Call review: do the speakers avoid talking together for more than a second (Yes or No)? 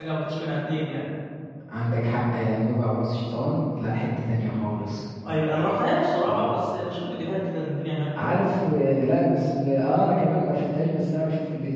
Yes